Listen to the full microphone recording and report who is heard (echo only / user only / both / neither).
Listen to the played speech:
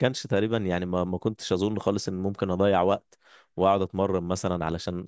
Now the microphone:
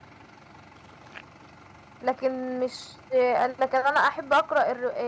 user only